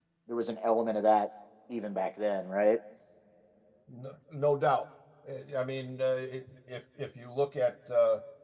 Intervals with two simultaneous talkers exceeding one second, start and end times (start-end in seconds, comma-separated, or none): none